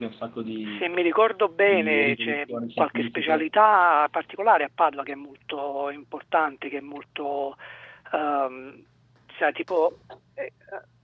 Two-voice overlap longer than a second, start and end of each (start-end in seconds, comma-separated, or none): 1.7-3.5